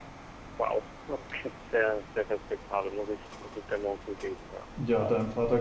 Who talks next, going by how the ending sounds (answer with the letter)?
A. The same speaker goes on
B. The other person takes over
B